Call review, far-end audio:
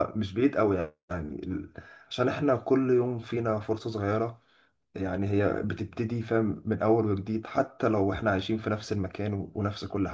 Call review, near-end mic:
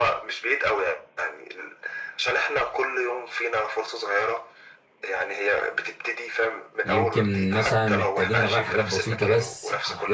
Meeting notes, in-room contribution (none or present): present